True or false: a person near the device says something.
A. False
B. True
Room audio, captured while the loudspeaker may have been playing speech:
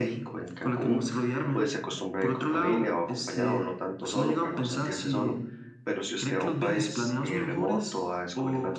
B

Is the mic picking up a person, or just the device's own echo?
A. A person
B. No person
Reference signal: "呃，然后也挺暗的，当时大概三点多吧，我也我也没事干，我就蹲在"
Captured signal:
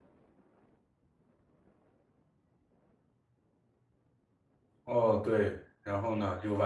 A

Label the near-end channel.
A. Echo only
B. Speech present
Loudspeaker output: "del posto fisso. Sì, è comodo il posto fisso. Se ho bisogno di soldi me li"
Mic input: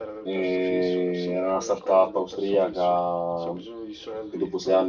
B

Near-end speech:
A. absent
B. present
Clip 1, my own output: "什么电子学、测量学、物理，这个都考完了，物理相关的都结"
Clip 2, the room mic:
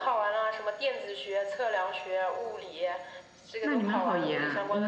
B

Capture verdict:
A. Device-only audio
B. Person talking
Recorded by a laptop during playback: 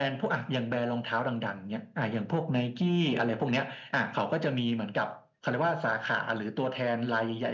A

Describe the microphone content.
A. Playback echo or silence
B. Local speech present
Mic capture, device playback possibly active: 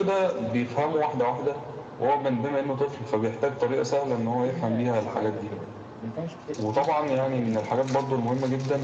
B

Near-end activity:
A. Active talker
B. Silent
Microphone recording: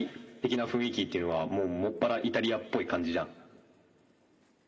B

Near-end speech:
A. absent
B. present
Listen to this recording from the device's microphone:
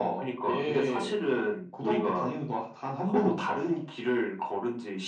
A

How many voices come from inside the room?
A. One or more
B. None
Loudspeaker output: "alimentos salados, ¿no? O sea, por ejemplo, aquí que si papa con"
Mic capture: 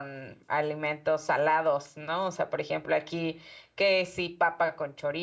B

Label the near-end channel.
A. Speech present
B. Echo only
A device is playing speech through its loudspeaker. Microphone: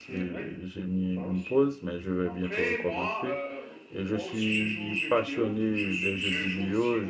A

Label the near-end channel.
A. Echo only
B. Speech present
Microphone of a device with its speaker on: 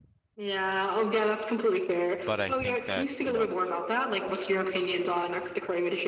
B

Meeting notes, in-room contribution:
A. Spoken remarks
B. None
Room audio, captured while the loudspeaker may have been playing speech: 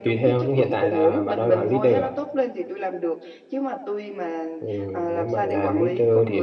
A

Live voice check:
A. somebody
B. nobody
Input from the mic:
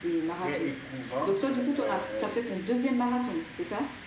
A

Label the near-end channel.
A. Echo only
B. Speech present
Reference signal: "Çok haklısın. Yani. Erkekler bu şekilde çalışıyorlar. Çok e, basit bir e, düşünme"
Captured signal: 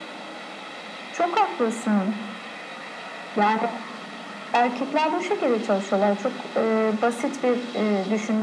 A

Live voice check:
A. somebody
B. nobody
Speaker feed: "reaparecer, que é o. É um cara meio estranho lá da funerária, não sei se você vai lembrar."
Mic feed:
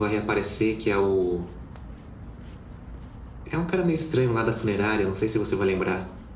B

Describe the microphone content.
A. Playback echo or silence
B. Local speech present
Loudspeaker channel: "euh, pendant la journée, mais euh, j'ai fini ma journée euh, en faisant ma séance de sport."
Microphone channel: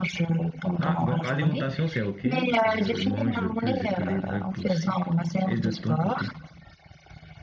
B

